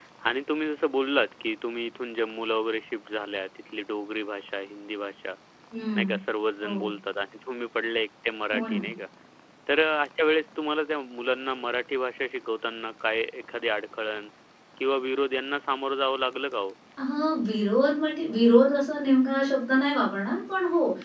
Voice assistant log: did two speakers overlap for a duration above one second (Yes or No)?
No